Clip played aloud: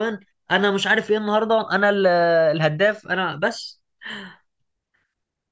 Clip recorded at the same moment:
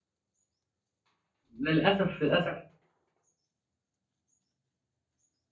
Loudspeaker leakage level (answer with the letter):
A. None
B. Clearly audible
A